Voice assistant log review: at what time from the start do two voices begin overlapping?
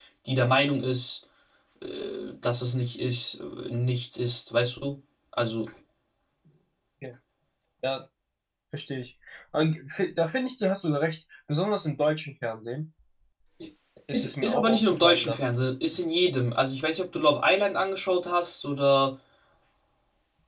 14.1 s

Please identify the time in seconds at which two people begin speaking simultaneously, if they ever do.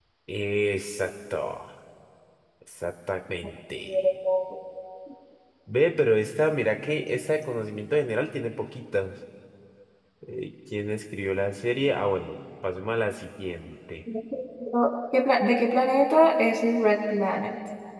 none

